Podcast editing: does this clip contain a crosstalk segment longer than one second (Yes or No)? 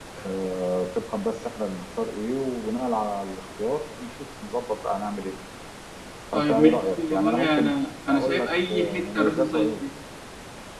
Yes